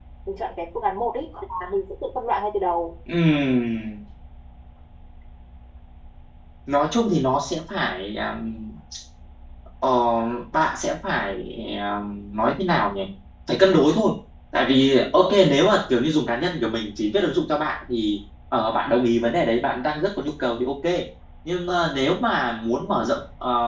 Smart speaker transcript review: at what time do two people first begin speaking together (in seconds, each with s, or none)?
none